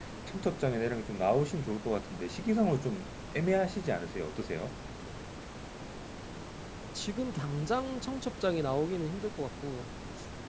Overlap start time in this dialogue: none

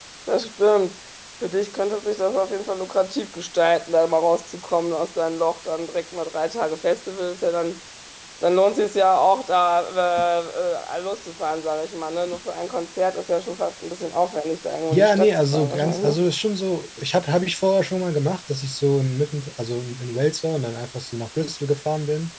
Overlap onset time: 14.9 s

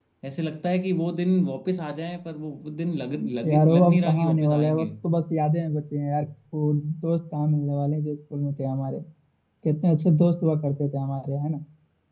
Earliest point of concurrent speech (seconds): 3.4 s

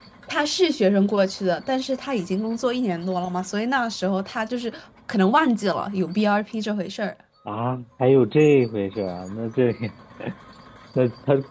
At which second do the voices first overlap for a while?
none

